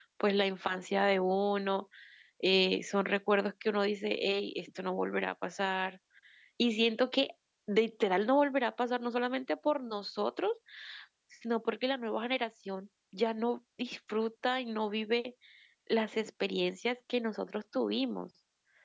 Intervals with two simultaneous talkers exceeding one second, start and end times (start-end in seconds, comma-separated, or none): none